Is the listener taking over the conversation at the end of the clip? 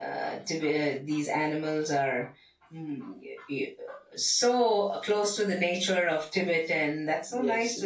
Yes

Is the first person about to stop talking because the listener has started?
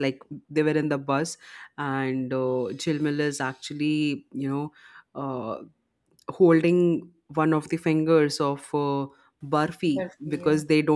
No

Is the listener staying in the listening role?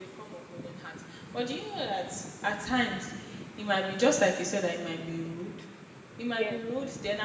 Yes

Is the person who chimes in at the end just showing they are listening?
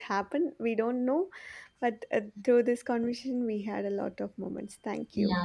No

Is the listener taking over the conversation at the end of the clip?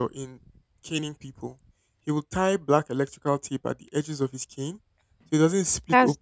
No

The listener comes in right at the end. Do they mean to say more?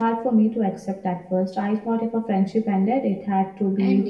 Yes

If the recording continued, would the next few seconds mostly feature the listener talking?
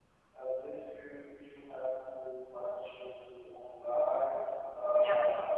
No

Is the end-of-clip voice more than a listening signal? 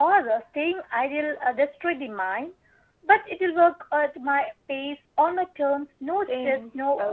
Yes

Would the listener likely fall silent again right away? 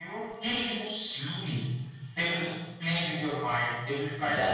Yes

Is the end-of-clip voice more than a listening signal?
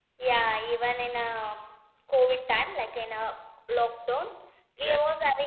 No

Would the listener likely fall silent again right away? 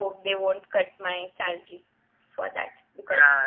No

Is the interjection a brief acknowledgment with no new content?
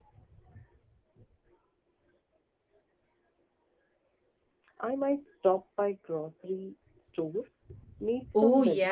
No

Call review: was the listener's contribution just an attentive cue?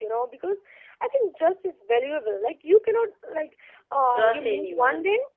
Yes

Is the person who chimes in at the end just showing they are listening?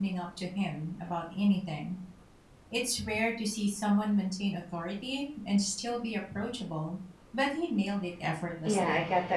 No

